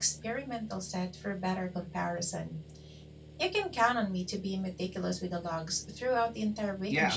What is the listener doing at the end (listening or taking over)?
taking over